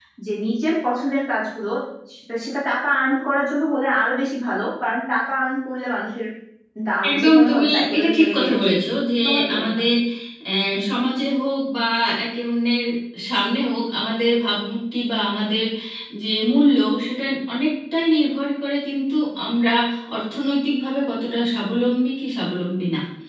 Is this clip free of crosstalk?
No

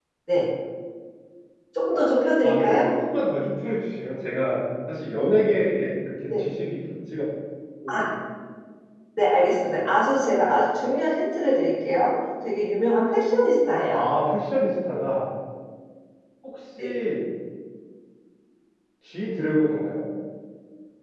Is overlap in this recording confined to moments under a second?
Yes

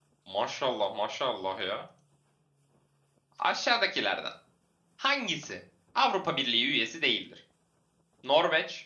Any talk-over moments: No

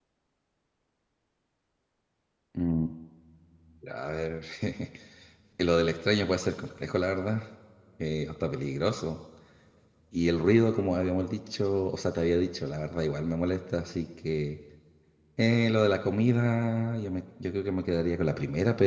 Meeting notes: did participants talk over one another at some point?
No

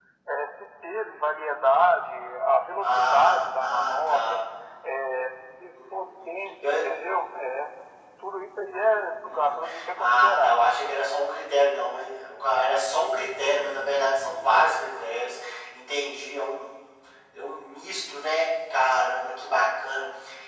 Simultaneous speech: Yes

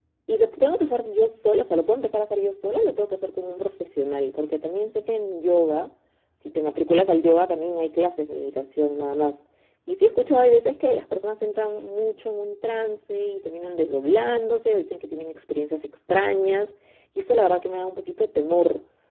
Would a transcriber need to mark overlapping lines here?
No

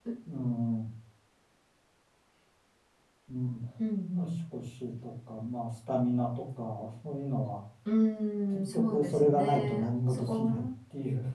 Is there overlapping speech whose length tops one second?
Yes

